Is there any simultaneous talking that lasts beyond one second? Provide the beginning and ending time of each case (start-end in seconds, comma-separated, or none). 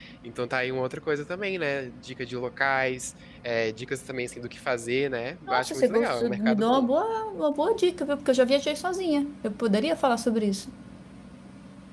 5.5-6.9